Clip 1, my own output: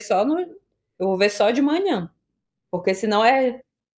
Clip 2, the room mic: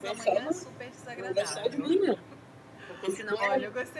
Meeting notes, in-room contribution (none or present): present